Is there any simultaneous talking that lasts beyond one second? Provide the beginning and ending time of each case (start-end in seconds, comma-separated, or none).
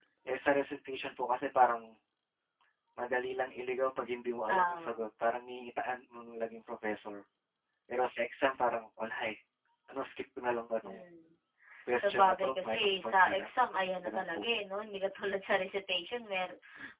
12.0-13.5